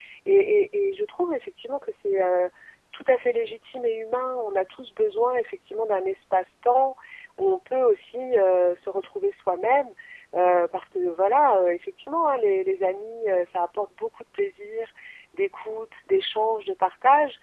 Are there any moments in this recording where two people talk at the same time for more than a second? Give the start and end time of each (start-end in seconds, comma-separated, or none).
none